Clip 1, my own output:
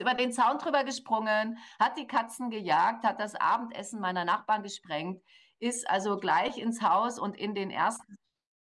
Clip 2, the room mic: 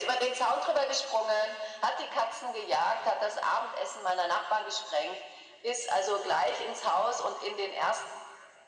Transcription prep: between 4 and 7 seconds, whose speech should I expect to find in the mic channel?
echo only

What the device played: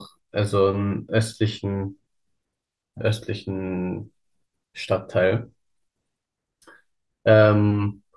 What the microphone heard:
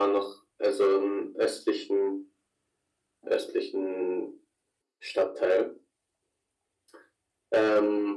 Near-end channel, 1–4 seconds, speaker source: echo only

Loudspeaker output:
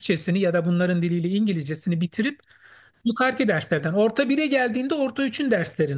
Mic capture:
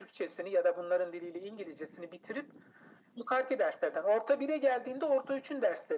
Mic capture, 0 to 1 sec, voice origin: echo only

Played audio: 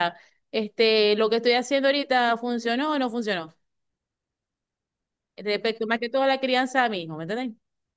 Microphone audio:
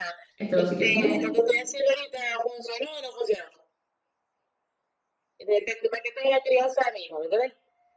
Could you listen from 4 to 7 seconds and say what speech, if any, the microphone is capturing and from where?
echo only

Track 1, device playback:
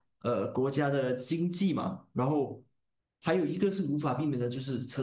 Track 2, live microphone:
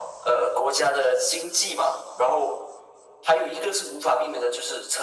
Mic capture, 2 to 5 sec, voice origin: echo only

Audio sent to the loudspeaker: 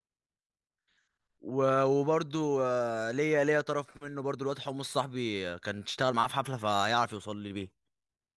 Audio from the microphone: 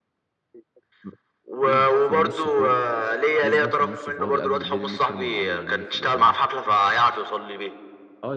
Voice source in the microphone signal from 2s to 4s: both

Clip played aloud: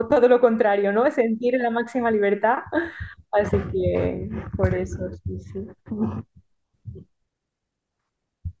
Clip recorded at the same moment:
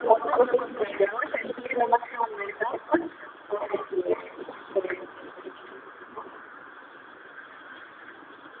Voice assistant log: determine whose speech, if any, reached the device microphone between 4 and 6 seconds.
echo only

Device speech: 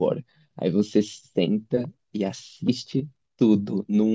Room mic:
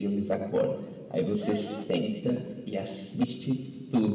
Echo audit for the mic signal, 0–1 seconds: echo only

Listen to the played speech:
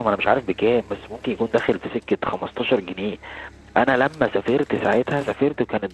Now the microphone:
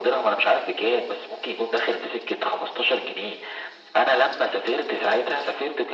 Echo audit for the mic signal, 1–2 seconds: echo only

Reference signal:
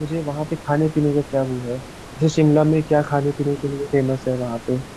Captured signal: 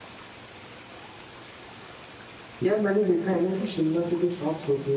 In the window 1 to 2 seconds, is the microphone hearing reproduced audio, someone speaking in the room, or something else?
neither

